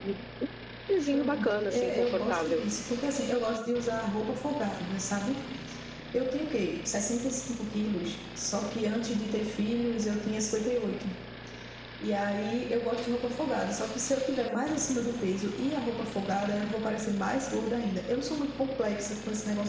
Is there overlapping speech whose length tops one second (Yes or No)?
Yes